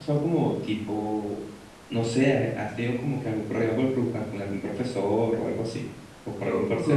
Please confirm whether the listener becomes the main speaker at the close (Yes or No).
Yes